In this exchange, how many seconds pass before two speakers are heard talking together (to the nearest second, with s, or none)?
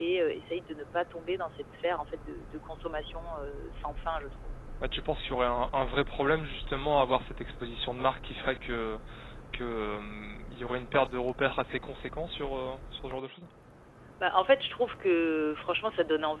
none